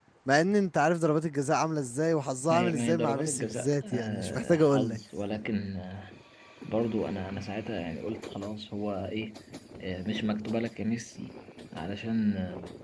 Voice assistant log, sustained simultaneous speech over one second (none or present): present